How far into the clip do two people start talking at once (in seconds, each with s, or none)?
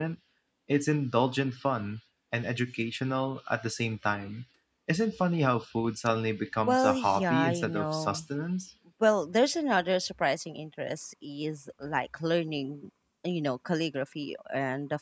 6.7 s